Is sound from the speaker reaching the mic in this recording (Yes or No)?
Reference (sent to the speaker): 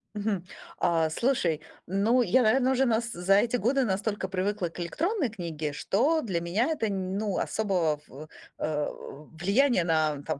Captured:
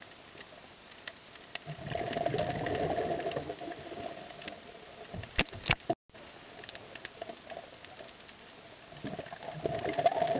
No